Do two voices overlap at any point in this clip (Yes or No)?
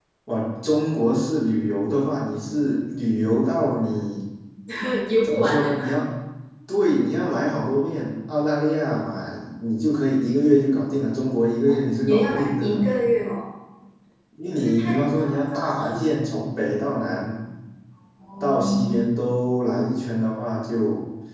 Yes